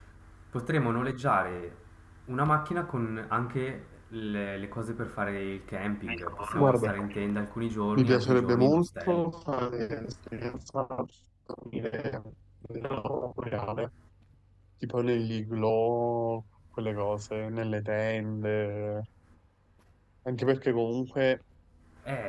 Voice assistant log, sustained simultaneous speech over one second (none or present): present